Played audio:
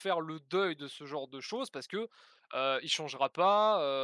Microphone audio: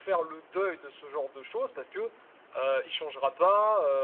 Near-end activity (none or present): none